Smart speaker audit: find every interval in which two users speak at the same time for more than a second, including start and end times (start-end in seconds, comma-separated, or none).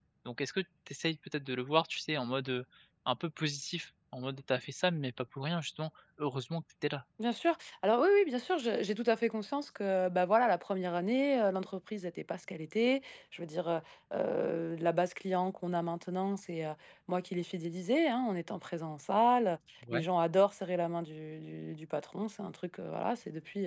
none